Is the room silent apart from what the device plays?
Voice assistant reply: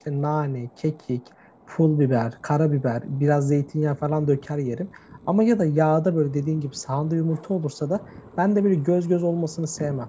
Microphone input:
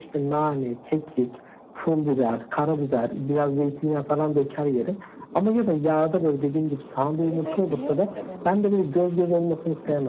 No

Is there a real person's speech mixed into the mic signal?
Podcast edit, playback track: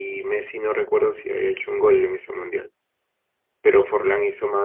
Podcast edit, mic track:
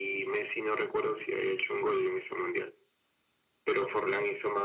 No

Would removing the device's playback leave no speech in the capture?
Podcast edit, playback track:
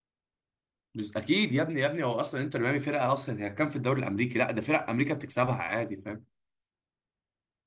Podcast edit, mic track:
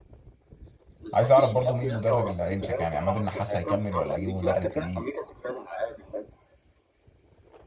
No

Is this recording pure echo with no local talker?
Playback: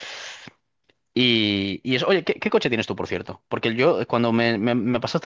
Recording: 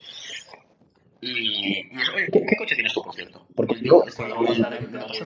No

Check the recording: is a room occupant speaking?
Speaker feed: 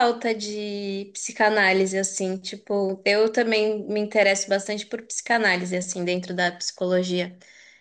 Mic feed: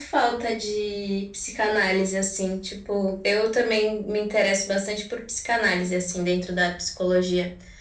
No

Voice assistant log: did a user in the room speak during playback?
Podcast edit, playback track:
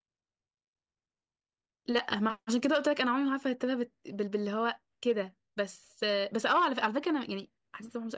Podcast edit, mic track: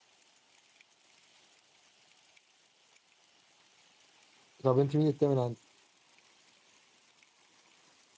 Yes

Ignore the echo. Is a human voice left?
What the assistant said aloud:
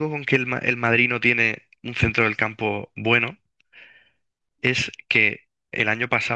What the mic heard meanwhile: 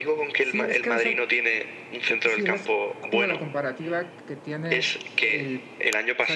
Yes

